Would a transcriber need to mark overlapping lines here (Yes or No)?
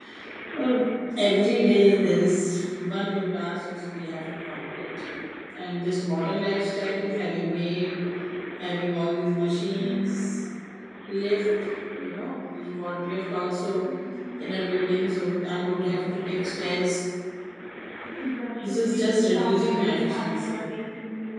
Yes